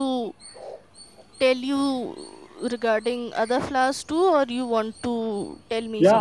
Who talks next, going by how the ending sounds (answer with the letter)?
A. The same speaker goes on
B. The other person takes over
B